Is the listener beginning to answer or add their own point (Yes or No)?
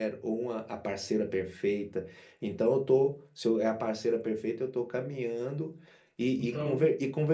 No